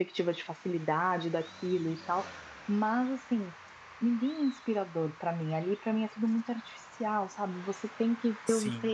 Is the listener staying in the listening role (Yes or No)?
Yes